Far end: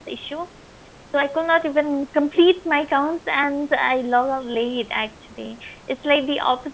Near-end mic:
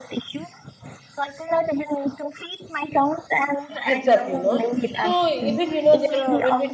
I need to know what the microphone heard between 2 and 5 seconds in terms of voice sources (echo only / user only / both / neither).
both